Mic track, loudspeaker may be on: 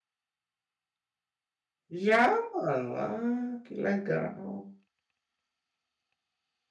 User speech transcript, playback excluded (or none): Já, mano. Ah, que legal.